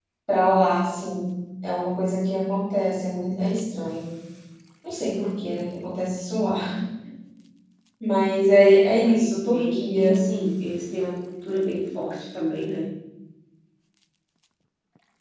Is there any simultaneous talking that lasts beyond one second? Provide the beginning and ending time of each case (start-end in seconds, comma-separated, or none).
8.8-10.1